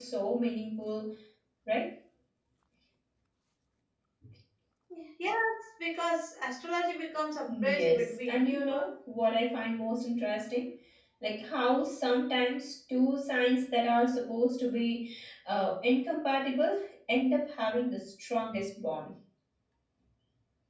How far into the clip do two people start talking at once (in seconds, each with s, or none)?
7.5 s